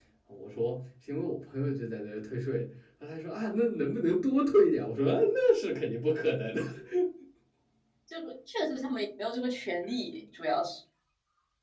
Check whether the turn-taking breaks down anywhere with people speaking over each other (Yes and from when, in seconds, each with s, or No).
No